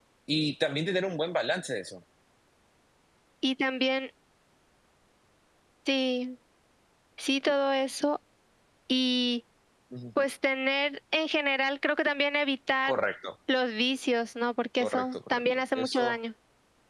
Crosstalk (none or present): present